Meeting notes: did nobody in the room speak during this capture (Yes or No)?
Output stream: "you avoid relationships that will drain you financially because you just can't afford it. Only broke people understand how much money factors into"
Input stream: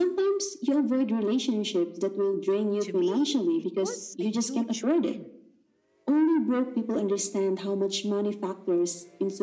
No